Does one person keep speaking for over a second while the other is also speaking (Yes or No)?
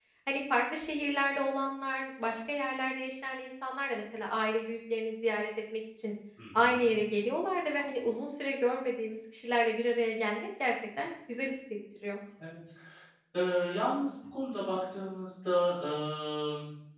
No